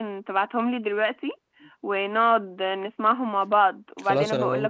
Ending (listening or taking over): taking over